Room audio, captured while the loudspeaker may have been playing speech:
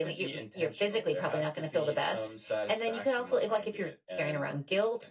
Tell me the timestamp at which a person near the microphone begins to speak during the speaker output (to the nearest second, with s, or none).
none